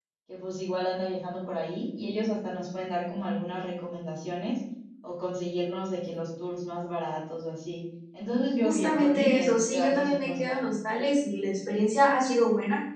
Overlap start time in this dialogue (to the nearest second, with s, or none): 9 s